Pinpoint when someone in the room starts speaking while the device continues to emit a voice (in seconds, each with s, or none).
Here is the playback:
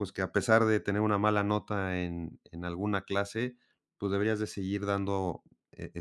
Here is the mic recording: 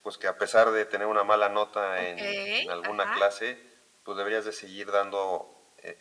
2.0 s